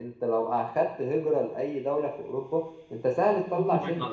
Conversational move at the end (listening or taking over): taking over